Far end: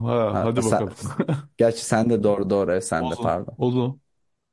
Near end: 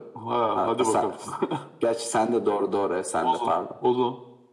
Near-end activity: none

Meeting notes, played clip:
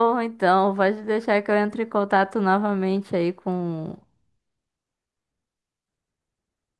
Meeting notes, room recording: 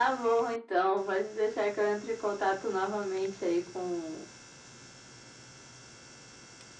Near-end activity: none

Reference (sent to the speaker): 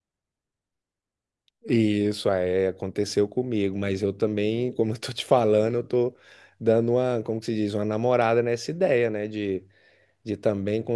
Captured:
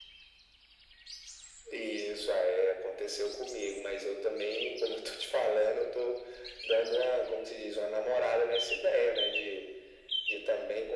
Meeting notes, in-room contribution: none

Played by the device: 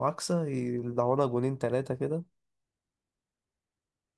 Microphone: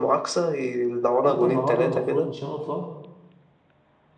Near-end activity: present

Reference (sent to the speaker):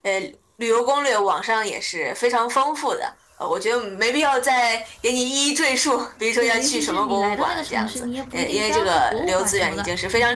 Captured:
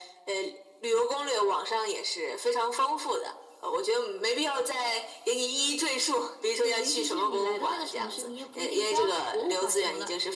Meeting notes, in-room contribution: none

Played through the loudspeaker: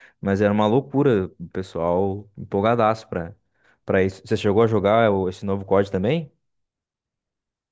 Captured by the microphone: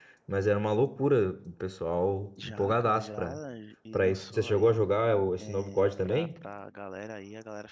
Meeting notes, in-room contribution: present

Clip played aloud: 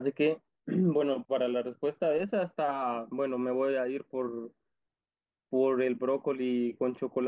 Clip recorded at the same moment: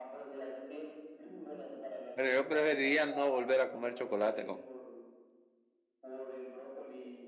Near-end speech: present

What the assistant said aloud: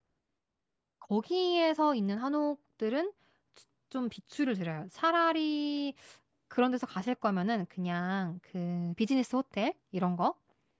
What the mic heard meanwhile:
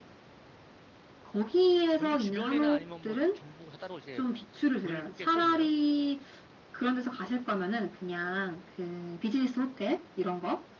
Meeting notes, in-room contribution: present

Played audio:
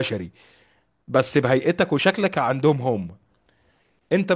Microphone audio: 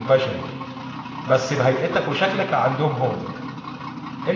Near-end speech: none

